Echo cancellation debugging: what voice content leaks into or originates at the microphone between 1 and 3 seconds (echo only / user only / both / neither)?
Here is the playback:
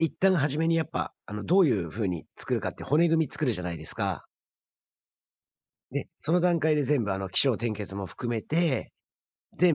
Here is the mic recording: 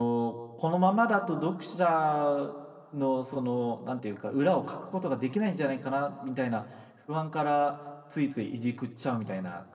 user only